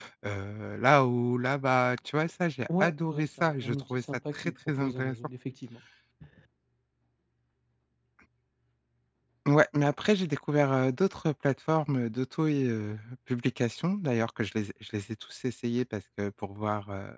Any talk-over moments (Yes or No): Yes